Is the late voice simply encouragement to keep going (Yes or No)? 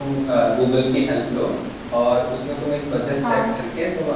Yes